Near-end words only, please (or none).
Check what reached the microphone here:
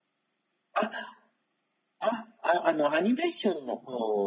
none